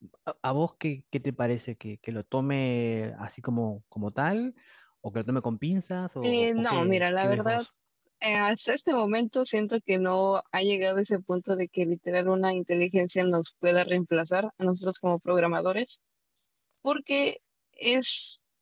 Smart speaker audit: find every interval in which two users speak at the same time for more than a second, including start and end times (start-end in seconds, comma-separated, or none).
6.2-7.6